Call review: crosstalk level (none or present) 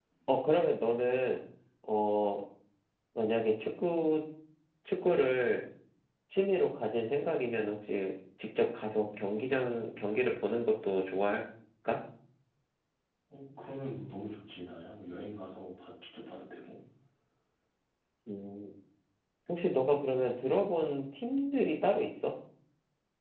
none